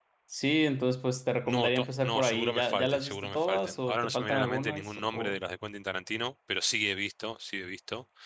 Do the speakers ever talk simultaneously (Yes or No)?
Yes